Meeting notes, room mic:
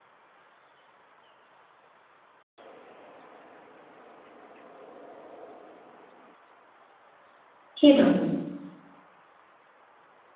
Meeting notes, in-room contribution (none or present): present